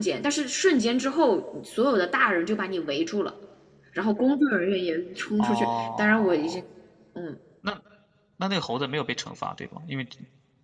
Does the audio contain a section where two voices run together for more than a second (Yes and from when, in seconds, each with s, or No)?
Yes, from 5.4 s